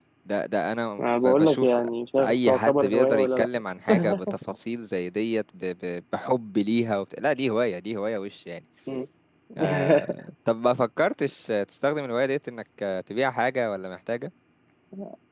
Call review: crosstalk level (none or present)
present